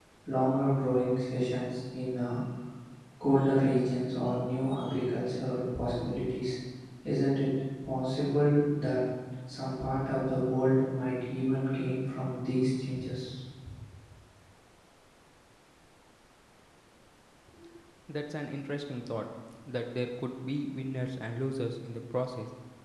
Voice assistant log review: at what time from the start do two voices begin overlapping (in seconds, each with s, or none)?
none